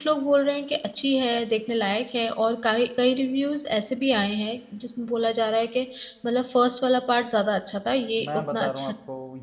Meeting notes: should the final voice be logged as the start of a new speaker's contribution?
Yes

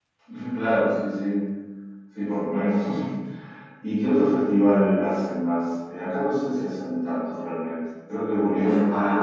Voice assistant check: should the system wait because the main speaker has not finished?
No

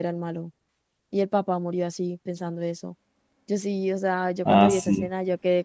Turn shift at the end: No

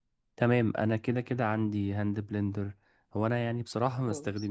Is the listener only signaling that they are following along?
Yes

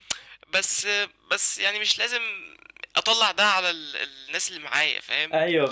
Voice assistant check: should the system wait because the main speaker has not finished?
Yes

